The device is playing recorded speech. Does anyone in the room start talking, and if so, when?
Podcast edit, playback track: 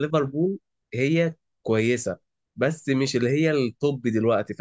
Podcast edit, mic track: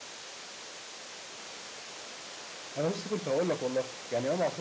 2.8 s

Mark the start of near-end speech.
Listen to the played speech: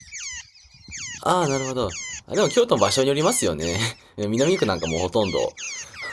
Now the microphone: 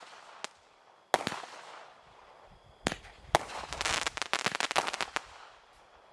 none

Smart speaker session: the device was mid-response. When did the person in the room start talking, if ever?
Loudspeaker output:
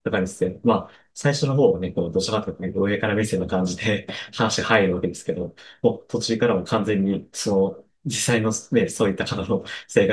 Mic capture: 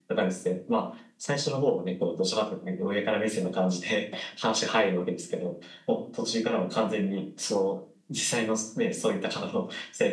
none

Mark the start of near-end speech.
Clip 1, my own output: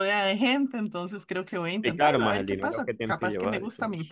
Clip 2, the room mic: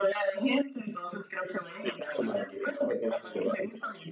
none

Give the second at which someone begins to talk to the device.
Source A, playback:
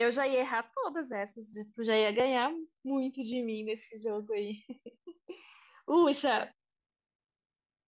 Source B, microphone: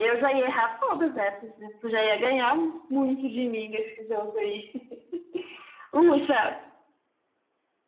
none

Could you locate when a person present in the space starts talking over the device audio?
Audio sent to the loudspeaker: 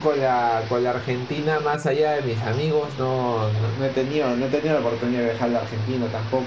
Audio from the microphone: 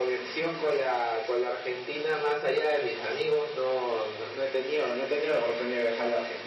none

